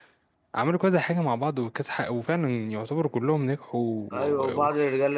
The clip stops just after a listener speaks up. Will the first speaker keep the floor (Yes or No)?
No